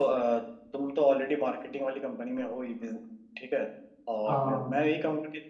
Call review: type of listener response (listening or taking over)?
listening